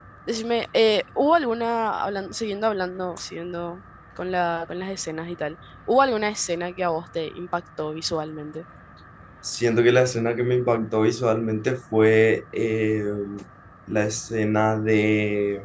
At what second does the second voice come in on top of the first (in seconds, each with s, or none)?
none